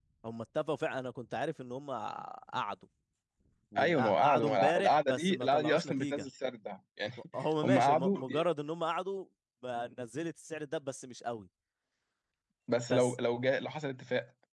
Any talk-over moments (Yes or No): Yes